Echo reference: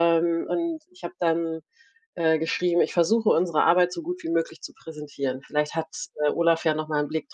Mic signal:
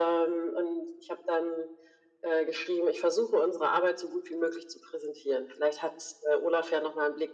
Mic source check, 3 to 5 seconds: echo only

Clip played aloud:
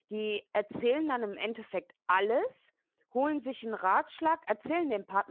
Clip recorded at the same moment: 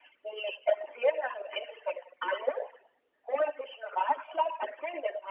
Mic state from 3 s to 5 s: echo only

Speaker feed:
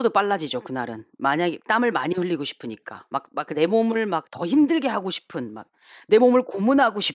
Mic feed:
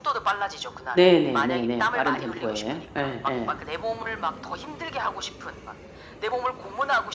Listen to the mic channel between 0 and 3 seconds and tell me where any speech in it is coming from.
both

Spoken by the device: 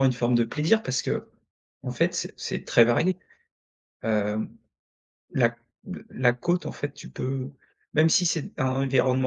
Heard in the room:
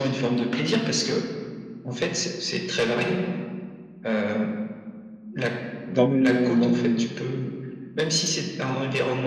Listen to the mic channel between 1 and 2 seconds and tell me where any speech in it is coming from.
echo only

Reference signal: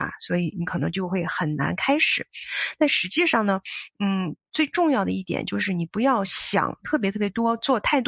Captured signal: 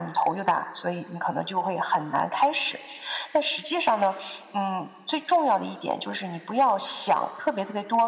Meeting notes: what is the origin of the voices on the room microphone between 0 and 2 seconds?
echo only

